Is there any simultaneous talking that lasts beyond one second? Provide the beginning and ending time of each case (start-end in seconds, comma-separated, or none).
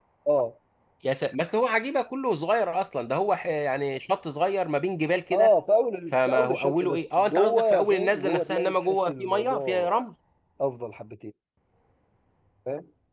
6.1-10.0